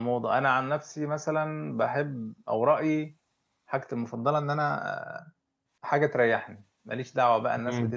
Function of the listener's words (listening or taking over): listening